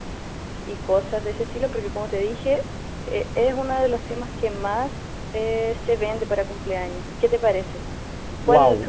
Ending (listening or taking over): taking over